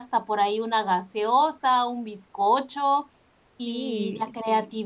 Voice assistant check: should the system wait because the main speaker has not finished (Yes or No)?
Yes